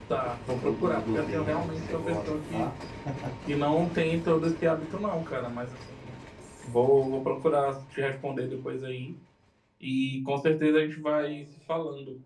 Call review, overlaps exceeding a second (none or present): present